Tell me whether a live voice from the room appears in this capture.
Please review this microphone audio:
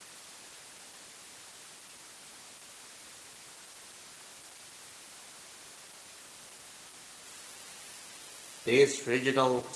Yes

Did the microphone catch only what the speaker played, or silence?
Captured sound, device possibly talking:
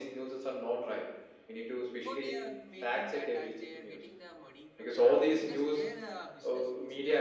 No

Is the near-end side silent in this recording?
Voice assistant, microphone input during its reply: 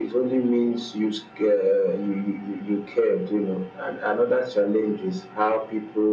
Yes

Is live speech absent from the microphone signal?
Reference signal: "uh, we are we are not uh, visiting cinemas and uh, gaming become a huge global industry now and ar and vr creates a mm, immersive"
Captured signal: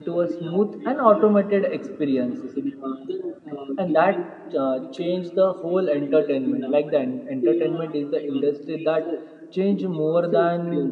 No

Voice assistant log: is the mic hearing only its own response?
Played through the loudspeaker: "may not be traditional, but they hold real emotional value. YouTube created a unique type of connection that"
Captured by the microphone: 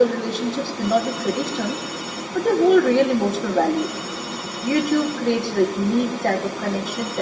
Yes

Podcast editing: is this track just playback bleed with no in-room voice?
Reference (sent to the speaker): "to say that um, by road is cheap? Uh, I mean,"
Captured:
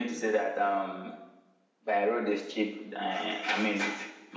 Yes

